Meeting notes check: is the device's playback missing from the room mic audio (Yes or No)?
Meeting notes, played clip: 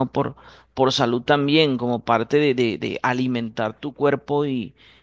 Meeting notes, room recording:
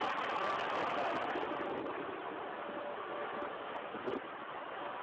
Yes